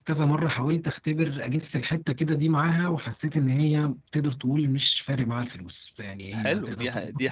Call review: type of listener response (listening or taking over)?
taking over